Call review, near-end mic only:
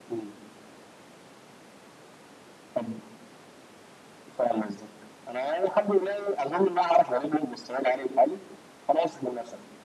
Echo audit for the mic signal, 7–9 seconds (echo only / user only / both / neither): echo only